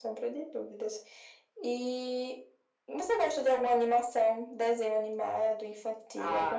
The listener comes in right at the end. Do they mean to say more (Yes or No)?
Yes